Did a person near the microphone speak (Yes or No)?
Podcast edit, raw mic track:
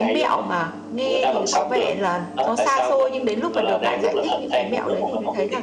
Yes